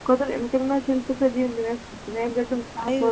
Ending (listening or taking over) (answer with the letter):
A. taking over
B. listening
A